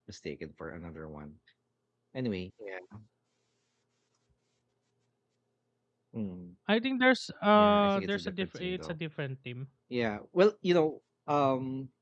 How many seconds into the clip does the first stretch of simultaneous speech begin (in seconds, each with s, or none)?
7.5 s